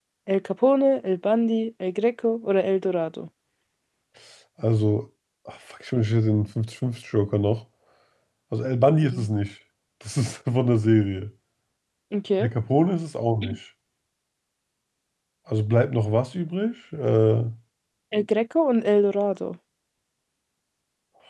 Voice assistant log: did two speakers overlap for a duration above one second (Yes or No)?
No